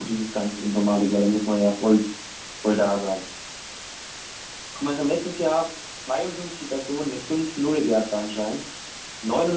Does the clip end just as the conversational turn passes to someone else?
No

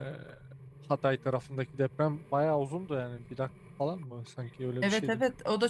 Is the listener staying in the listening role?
No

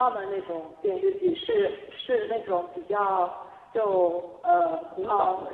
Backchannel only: Yes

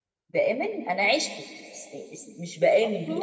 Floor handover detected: No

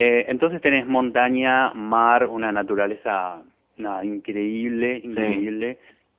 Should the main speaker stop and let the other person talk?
No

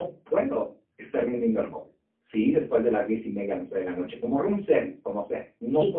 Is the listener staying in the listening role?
No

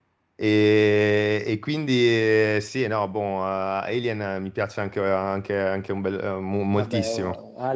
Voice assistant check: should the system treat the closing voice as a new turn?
Yes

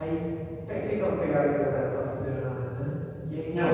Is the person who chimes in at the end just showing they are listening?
Yes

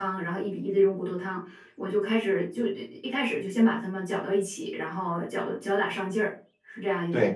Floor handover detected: Yes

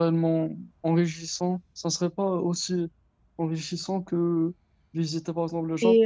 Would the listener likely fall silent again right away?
No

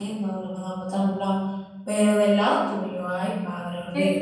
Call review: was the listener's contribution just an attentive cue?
No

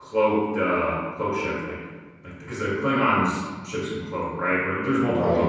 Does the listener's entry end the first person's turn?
No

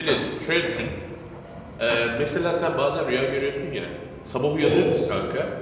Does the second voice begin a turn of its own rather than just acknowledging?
No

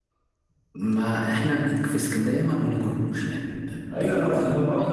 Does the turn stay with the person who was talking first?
No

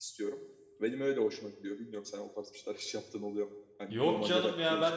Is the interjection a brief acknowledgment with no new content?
No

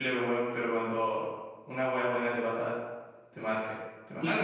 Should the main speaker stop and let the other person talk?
Yes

